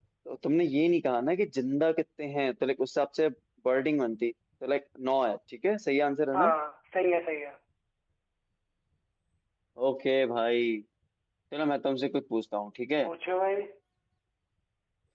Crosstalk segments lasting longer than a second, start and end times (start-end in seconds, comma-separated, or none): none